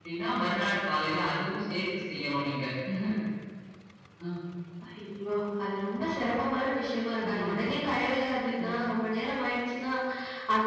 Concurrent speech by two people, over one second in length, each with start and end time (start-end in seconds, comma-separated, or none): none